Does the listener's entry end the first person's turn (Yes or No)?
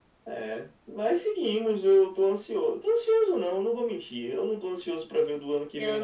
Yes